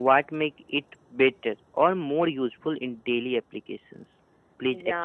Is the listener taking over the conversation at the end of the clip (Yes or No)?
Yes